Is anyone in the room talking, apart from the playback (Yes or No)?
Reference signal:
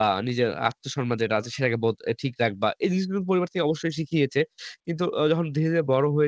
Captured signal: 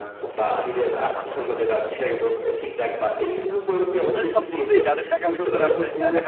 Yes